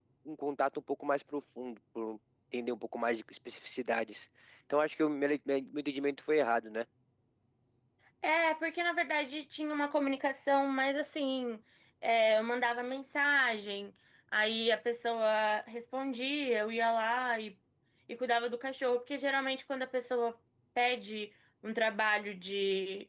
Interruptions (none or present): none